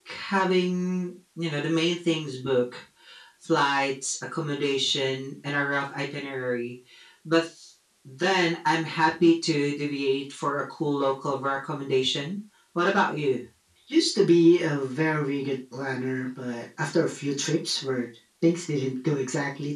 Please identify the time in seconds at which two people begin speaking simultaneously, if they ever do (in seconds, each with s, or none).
none